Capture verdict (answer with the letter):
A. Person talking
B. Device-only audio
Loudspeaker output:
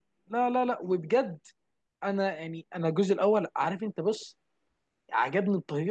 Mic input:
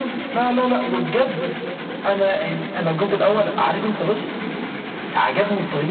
B